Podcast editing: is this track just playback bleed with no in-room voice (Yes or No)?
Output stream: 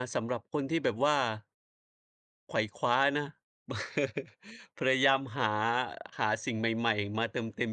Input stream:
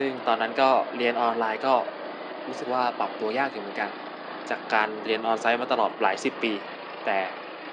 No